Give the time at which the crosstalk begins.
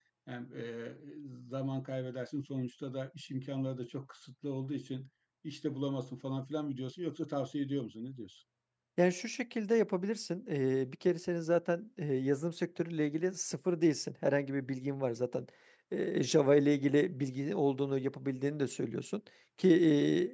none

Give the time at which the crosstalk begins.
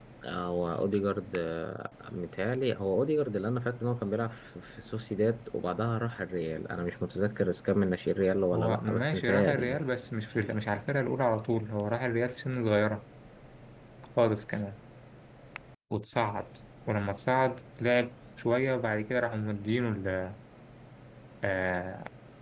8.5 s

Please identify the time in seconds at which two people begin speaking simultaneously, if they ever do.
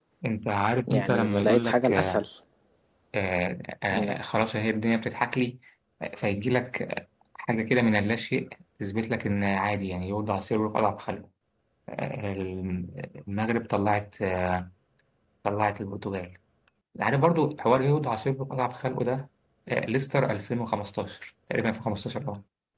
0.9 s

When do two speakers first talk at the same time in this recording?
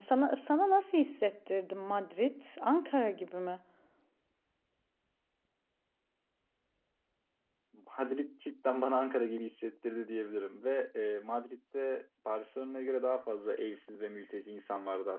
none

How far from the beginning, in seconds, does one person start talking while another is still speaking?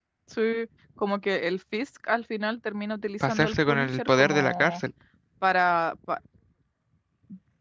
3.2 s

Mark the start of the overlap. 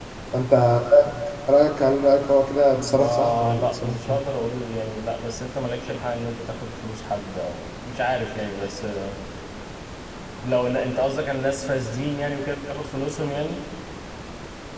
2.8 s

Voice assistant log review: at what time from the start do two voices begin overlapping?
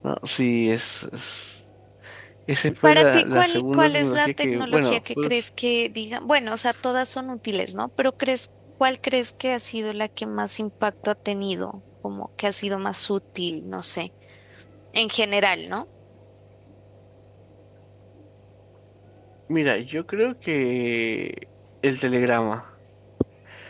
2.8 s

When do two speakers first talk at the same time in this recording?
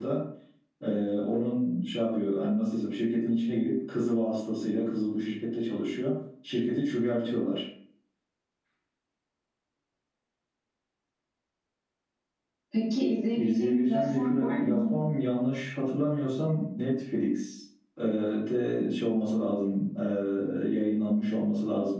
13.3 s

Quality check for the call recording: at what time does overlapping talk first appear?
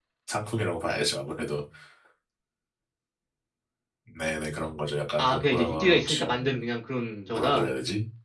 5.2 s

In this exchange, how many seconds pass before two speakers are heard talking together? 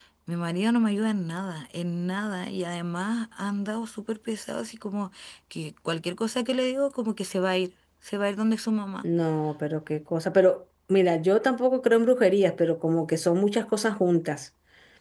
none

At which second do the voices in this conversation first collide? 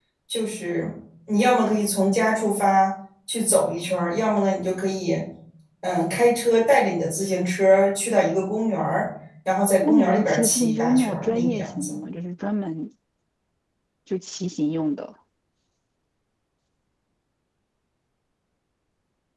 9.8 s

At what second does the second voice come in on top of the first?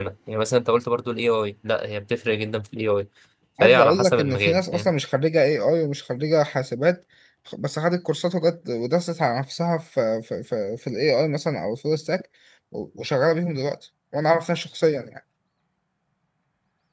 3.6 s

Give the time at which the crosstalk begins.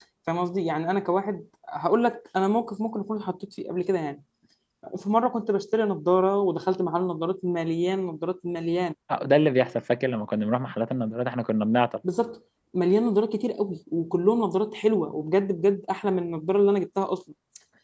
none

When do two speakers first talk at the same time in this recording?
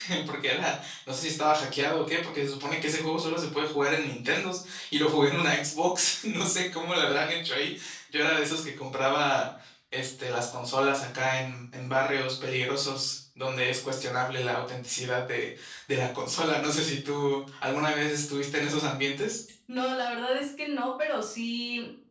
none

